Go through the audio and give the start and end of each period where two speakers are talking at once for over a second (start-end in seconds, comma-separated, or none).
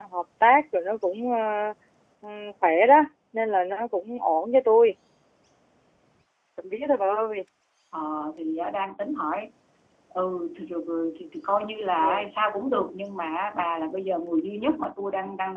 none